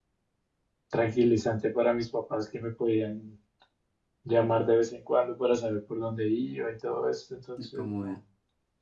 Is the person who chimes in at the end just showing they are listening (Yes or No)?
Yes